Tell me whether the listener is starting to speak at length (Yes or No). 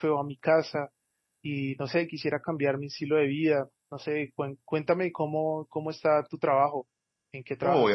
Yes